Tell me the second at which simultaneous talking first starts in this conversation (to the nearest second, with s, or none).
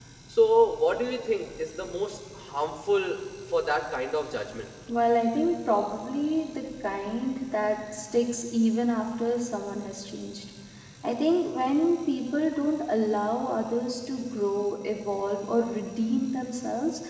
none